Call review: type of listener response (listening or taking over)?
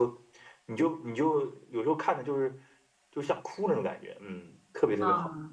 taking over